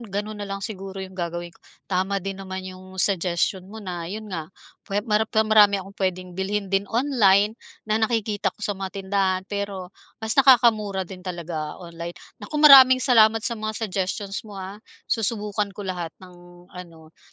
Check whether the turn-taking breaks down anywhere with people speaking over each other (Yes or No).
No